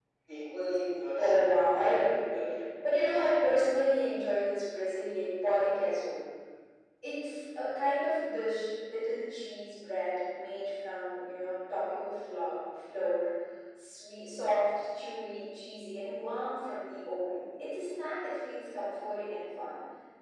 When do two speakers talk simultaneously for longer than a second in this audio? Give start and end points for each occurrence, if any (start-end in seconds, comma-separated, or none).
1.2-2.4